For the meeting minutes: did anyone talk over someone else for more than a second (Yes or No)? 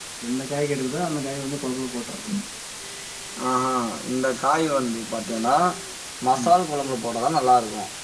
No